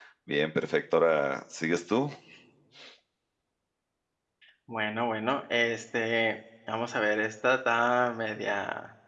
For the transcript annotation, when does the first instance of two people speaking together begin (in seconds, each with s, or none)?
none